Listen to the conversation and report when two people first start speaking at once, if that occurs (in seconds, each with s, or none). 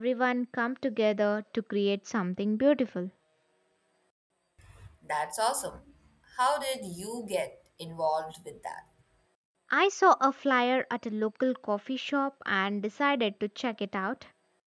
none